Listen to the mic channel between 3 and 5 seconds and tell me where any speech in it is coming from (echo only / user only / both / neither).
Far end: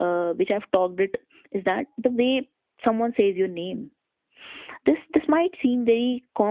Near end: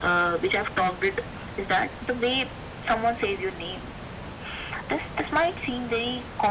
echo only